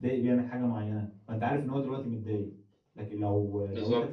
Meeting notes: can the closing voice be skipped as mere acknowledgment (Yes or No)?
Yes